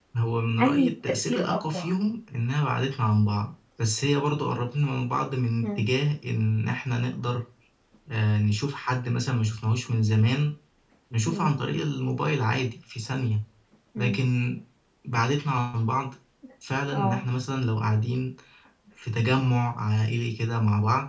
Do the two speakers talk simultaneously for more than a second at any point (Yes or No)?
Yes